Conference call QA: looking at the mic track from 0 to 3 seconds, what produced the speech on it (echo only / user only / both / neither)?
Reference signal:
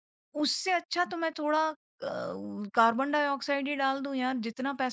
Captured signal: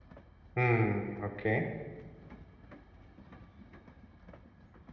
user only